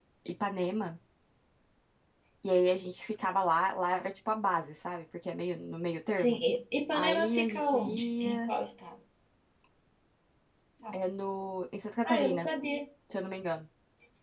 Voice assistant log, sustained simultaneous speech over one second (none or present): present